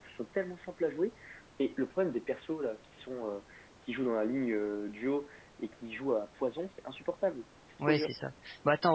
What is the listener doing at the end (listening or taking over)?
taking over